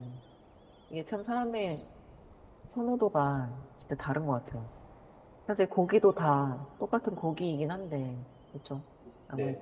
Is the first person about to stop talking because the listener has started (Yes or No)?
Yes